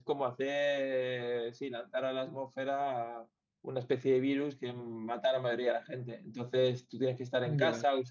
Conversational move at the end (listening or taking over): listening